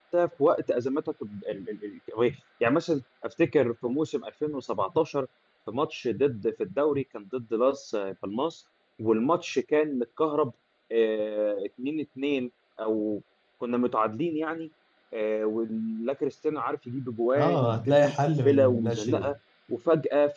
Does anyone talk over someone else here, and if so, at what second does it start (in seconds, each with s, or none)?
17.4 s